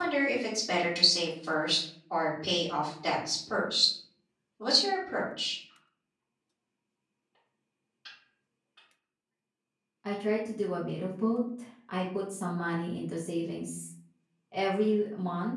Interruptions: none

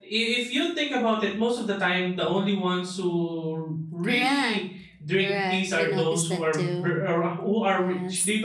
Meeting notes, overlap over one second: present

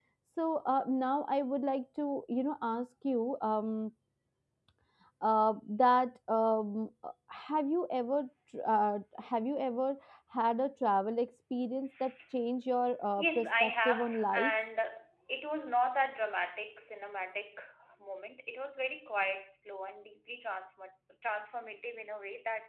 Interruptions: present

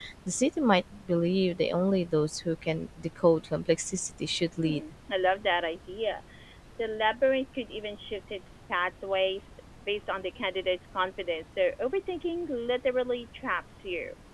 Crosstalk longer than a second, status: none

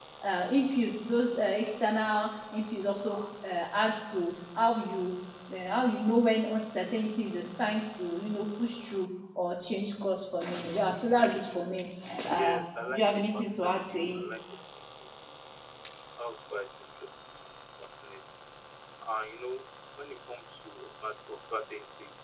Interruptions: present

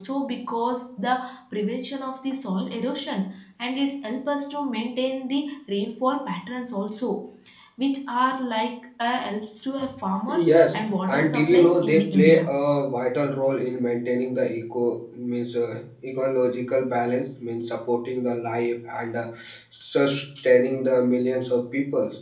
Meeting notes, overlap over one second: present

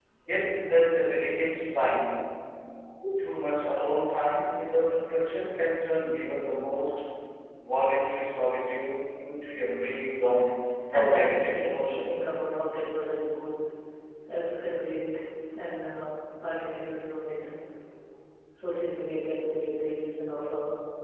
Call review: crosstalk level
present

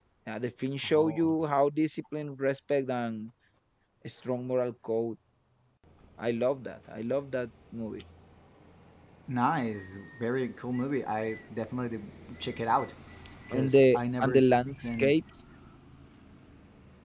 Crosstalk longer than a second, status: present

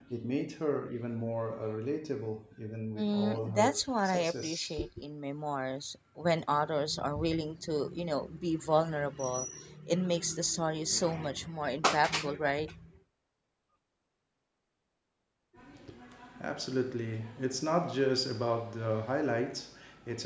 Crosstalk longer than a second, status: present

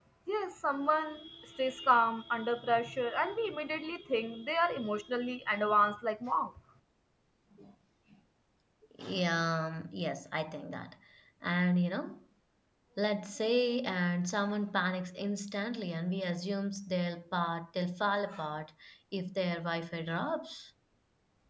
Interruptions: none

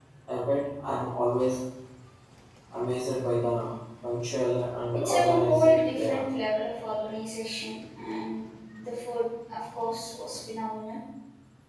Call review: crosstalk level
present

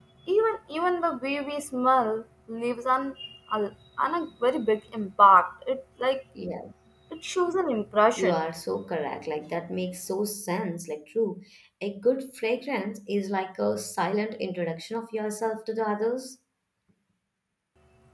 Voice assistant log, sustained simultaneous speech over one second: none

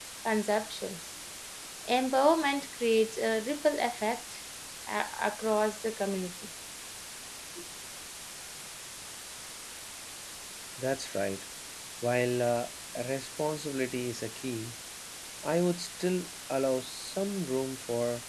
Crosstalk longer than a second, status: none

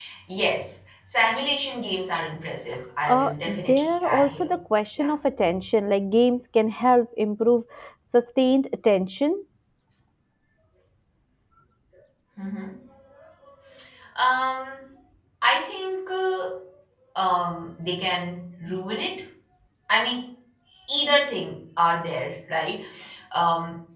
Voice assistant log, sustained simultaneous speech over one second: present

